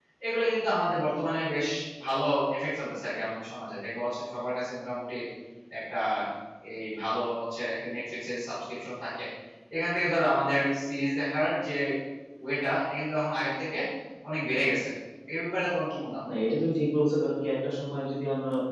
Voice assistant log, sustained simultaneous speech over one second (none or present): none